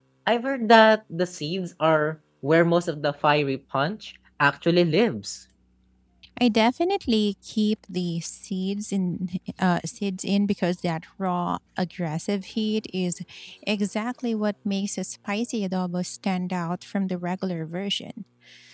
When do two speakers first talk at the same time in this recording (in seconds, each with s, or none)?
none